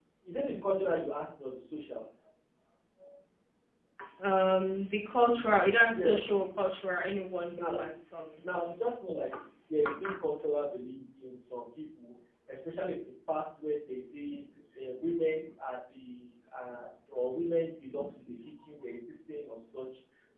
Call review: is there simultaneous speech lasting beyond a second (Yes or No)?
No